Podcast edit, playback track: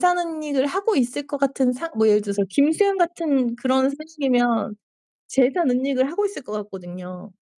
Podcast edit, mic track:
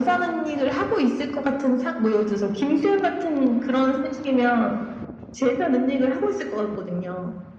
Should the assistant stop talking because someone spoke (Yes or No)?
No